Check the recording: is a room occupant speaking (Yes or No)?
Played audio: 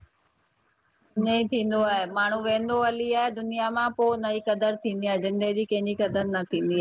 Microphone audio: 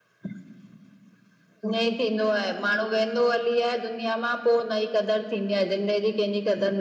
No